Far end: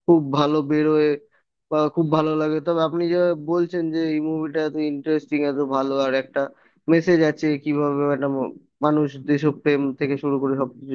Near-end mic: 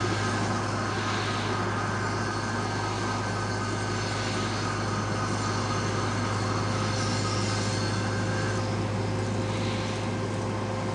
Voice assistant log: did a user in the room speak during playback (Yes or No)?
No